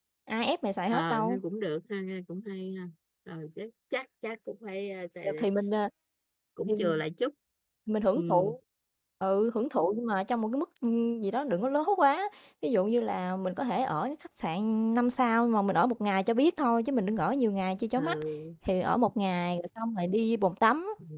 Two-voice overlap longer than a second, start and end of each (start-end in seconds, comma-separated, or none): none